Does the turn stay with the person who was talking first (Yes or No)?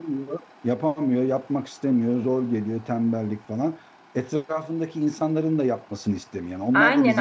No